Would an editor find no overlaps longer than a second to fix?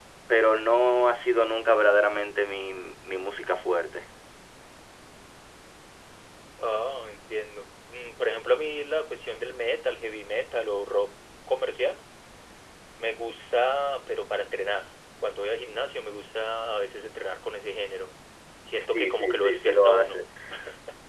No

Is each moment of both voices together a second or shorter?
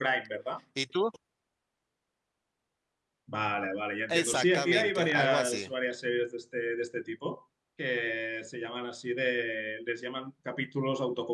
No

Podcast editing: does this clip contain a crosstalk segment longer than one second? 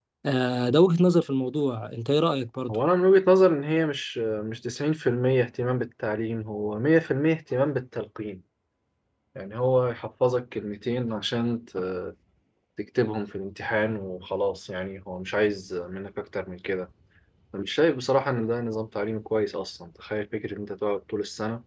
No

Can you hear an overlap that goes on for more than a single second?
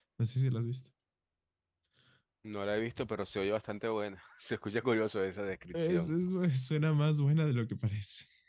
No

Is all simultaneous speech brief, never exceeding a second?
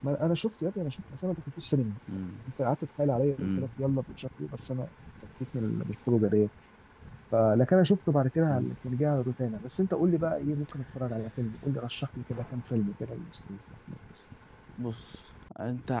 Yes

